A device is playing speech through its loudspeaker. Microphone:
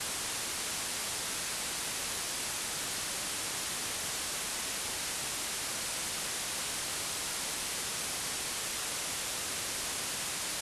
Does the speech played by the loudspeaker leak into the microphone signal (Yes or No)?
No